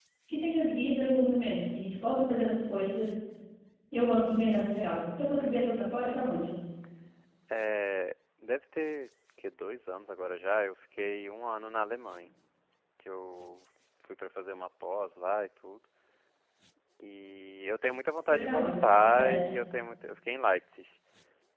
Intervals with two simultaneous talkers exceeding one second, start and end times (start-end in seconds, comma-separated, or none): 18.3-19.5